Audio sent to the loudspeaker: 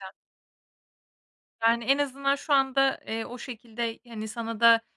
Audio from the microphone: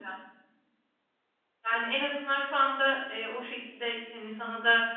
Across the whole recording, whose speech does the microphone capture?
echo only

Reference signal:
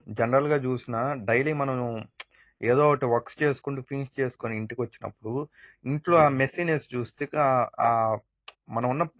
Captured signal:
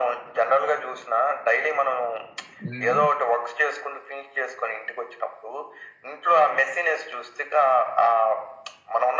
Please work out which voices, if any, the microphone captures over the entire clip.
both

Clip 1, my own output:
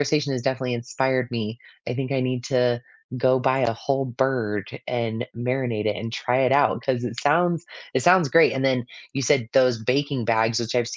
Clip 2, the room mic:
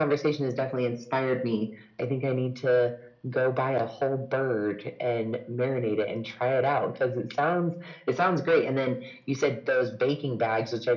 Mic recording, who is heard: echo only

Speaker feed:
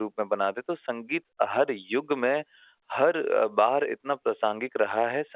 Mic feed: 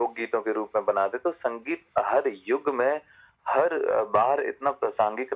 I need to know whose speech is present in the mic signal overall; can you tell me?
echo only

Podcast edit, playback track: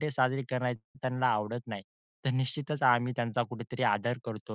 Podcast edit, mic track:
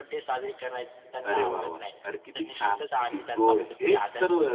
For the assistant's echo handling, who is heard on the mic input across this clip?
both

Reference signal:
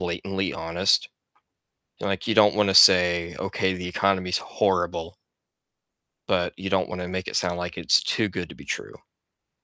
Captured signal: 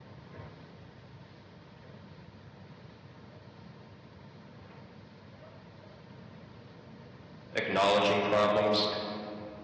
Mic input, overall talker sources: user only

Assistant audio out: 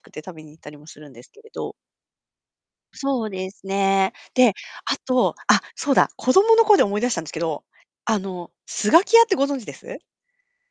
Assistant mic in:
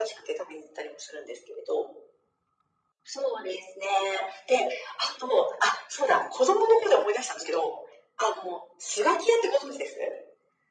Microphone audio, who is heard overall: echo only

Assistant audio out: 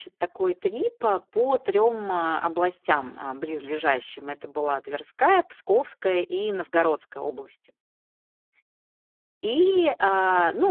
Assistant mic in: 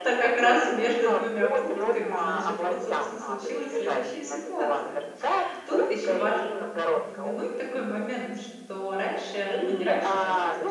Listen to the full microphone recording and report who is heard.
both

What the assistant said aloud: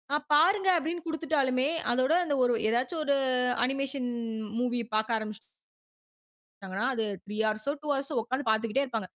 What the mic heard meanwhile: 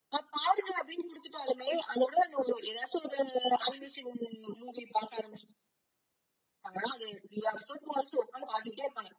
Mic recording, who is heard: echo only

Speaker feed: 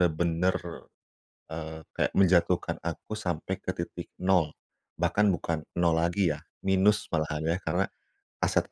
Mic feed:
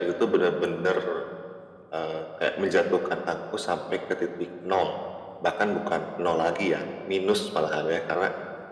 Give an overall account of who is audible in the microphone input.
echo only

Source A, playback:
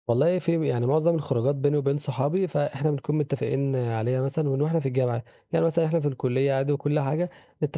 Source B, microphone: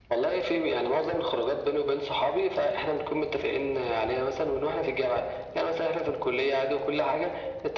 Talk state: echo only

